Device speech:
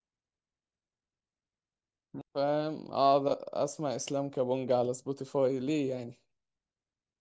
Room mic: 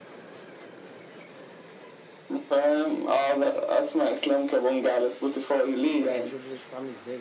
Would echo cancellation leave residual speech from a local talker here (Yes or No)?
Yes